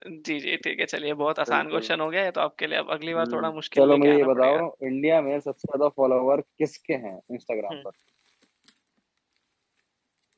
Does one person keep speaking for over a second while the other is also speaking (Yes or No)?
Yes